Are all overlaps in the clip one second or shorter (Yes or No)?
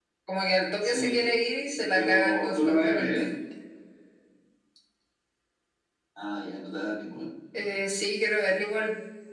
No